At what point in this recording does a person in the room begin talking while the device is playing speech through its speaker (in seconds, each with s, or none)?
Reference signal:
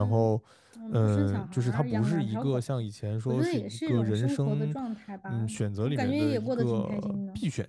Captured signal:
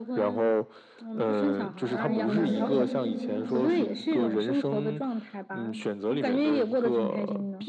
1.8 s